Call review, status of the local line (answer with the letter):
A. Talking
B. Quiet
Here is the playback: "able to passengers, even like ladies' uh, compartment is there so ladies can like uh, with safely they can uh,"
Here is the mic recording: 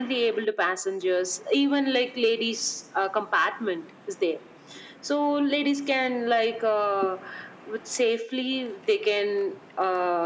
B